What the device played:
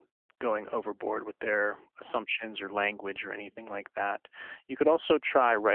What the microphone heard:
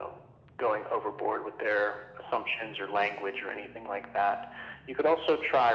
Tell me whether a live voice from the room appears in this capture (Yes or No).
No